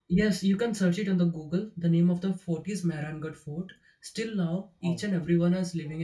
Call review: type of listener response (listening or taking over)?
listening